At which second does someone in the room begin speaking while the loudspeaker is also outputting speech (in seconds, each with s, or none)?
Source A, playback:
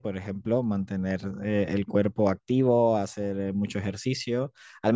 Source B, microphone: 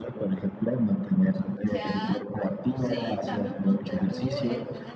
1.6 s